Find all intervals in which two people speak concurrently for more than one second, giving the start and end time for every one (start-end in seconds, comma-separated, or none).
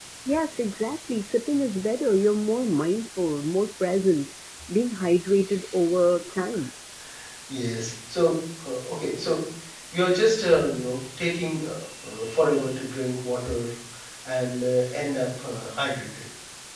none